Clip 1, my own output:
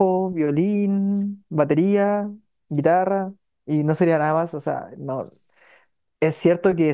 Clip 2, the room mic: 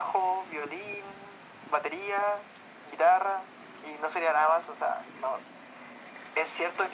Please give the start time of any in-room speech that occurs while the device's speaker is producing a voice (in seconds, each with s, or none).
none